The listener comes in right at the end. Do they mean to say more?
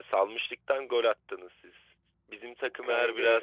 No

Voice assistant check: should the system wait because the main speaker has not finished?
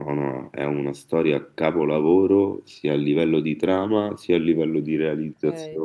No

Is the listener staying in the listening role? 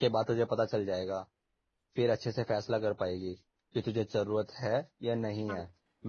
Yes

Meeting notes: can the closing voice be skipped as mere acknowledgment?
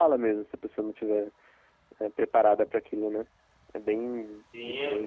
No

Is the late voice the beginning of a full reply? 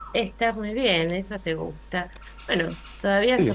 No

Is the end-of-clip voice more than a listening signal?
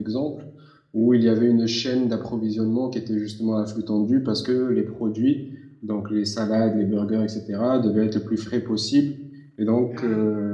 No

